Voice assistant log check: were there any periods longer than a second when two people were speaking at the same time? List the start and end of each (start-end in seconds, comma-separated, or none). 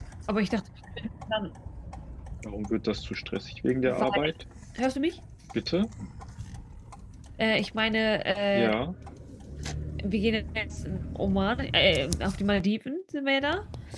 none